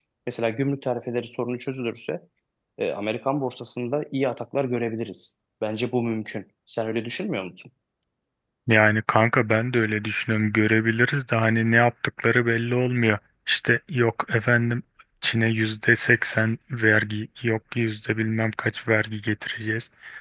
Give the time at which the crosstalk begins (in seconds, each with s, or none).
none